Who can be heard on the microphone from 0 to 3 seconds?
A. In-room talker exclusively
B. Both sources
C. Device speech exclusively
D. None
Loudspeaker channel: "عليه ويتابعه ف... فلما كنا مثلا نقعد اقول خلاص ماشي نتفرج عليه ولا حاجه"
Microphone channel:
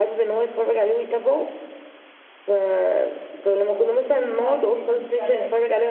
C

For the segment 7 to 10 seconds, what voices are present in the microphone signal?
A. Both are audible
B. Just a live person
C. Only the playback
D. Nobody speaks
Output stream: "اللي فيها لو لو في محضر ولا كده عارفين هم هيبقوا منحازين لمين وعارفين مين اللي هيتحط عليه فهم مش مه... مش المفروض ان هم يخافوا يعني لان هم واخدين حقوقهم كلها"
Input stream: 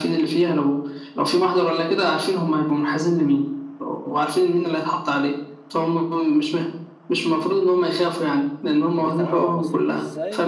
A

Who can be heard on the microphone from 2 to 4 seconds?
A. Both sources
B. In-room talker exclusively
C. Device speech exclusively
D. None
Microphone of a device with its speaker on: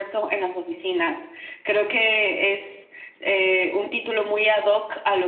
C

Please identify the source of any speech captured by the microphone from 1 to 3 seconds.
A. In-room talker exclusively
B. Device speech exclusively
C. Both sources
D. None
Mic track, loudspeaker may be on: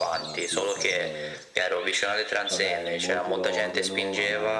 C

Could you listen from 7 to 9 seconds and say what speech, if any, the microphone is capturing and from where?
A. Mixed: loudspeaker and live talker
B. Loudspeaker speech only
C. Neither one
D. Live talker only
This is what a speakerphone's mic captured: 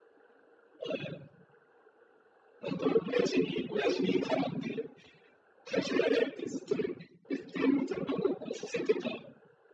B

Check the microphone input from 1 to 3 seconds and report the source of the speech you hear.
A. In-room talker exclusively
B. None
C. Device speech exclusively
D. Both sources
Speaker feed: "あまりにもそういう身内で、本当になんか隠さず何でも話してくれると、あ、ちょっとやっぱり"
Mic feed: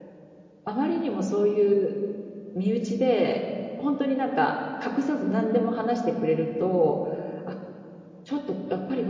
C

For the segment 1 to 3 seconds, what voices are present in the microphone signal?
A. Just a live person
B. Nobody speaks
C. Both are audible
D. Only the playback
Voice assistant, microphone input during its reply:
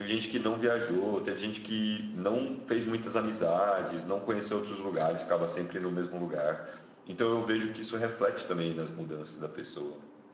A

